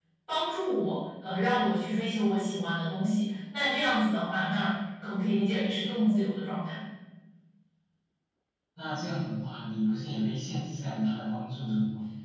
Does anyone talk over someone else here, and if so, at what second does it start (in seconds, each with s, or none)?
none